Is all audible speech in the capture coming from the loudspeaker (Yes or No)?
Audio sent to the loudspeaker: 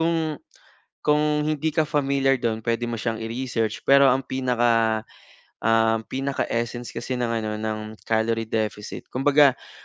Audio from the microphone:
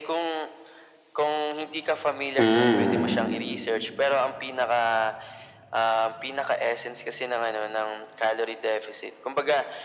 No